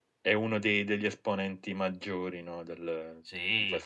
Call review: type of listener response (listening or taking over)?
taking over